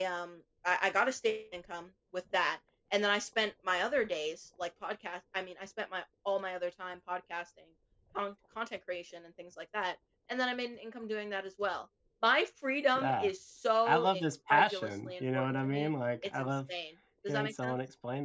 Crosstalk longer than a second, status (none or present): present